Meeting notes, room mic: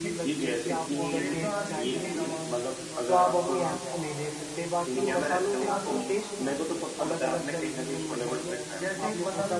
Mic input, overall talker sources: both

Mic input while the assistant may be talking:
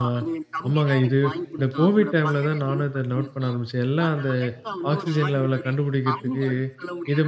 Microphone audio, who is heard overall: both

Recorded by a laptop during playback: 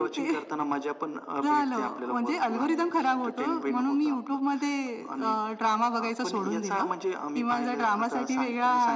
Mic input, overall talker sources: echo only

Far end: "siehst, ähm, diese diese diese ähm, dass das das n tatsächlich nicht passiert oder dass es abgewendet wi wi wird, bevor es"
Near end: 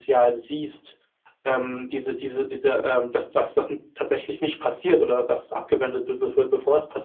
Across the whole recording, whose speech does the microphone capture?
echo only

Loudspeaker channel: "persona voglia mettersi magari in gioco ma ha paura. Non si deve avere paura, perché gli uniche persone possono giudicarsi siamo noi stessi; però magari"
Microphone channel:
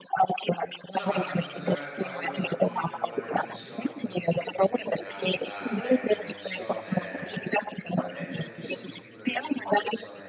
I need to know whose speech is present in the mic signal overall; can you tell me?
both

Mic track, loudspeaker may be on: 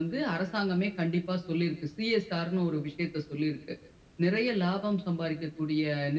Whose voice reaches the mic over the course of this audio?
echo only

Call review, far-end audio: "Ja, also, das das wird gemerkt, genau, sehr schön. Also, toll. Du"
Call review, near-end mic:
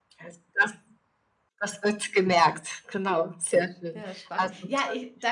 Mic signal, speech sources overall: both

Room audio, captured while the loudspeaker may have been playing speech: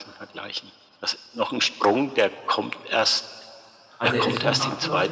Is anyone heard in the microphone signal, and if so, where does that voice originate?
both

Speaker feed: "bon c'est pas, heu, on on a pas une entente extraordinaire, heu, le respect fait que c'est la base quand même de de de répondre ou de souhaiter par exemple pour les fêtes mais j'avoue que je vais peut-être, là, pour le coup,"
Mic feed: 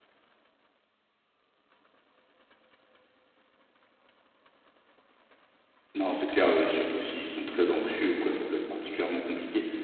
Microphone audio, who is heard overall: user only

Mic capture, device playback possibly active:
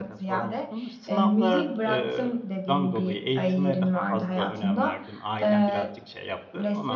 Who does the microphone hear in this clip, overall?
both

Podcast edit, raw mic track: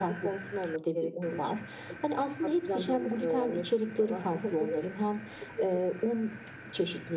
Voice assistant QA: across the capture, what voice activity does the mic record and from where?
echo only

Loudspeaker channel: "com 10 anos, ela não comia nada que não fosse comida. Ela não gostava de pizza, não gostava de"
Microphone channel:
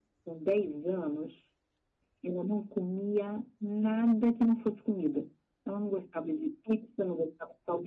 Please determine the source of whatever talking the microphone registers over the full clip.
echo only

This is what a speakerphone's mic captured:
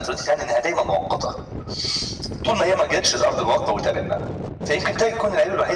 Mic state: echo only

